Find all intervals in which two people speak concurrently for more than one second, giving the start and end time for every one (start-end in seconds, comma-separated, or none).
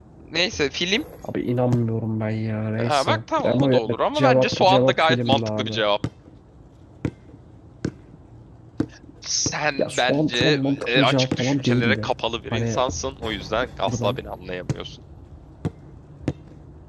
2.8-5.7, 9.8-12.1